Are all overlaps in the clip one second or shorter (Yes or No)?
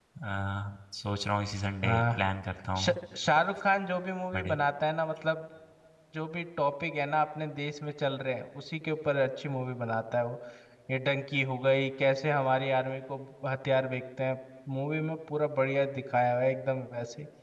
Yes